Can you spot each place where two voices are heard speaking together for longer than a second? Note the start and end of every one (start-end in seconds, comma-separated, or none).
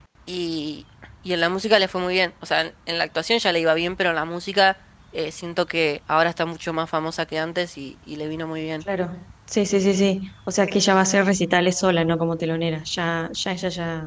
none